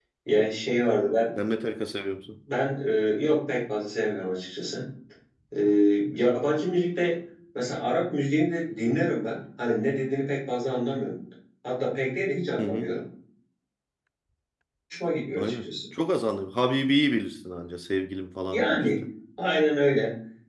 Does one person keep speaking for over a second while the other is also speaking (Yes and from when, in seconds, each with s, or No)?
No